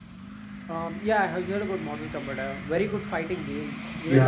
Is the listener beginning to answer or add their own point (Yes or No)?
Yes